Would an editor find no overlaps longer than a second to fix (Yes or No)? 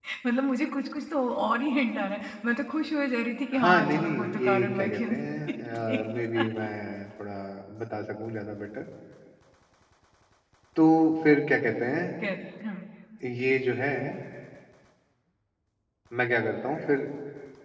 No